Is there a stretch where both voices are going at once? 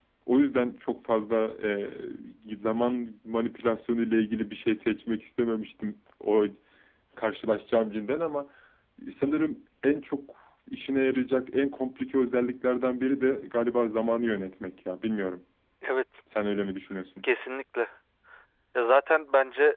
No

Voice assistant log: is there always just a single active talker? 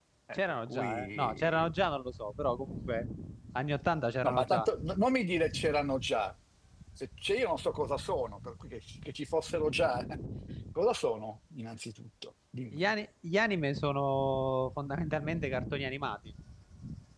No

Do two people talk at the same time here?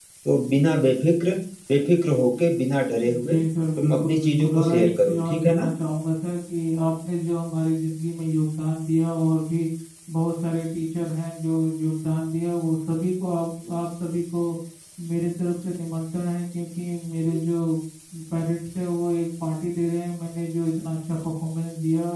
Yes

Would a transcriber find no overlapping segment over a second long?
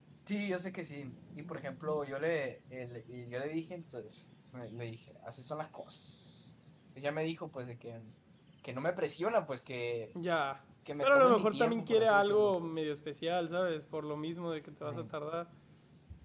No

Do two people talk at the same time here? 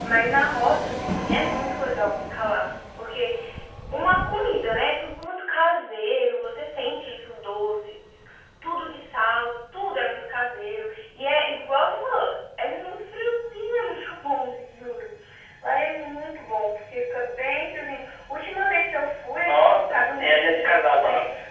Yes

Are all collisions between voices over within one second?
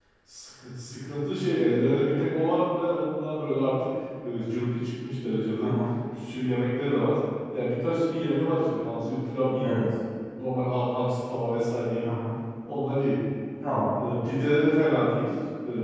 Yes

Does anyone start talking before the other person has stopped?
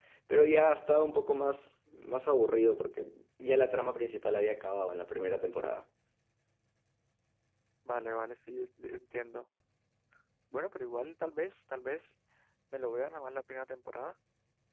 No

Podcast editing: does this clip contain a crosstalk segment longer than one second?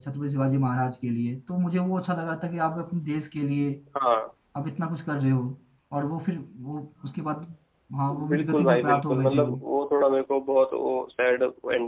Yes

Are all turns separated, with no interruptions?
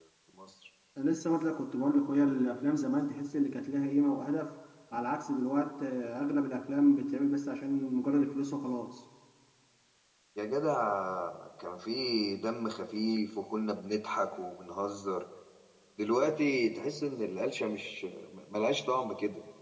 Yes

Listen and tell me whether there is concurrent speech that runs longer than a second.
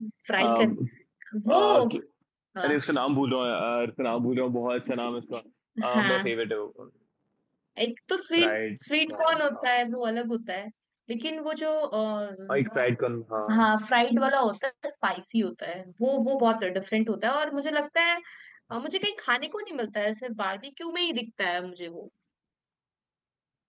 Yes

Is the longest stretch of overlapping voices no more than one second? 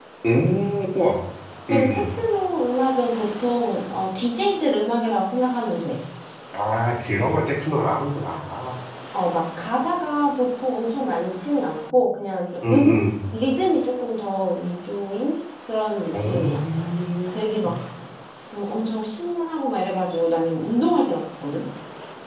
Yes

